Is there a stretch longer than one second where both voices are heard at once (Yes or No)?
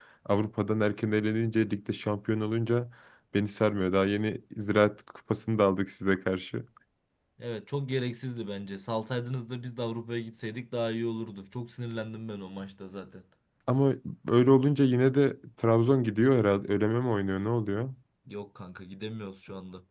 No